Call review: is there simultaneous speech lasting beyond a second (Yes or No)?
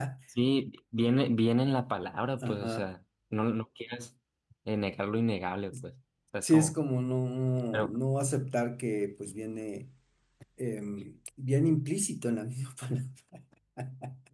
No